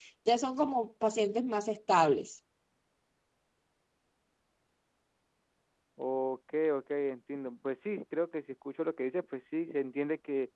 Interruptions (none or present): none